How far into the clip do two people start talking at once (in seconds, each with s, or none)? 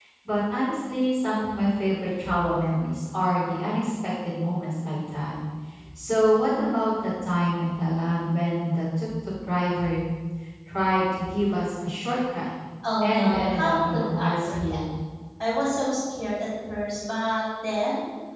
13.0 s